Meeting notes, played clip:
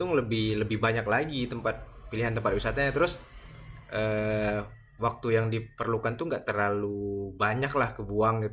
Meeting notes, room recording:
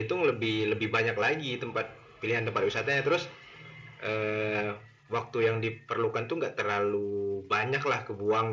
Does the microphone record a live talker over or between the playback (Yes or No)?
No